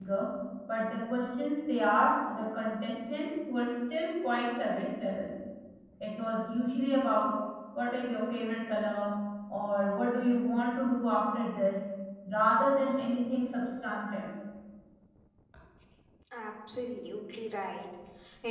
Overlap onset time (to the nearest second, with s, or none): none